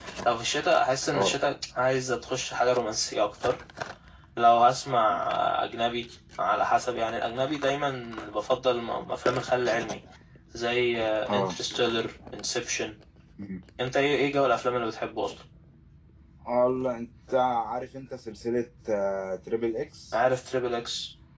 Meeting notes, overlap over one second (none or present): none